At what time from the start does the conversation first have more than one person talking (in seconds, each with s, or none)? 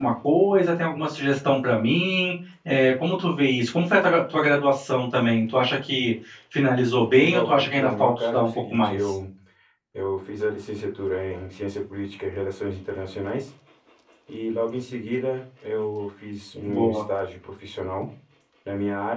7.2 s